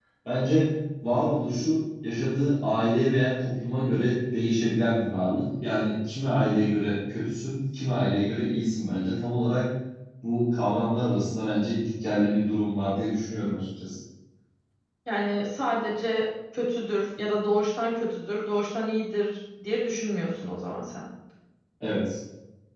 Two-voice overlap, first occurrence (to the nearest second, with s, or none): none